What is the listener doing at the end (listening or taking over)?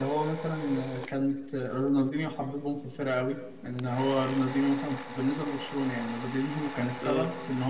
listening